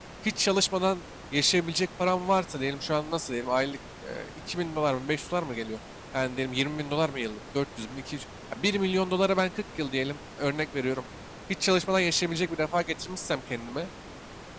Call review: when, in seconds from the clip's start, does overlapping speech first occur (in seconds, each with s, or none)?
none